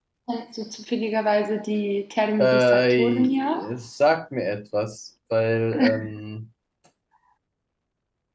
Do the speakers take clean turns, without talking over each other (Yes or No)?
No